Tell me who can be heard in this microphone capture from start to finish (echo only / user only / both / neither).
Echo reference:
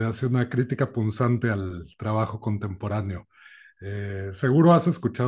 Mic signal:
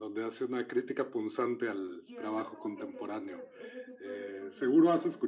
both